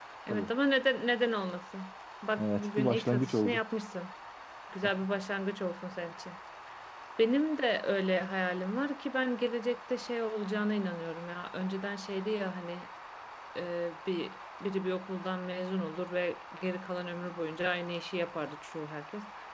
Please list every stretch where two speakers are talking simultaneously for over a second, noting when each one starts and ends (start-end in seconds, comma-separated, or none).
2.4-3.6